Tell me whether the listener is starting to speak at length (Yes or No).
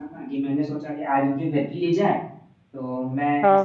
No